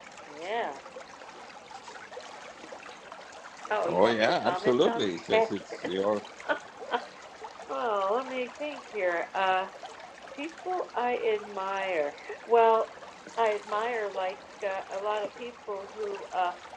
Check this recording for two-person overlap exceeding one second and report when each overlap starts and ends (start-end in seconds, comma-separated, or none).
3.8-5.5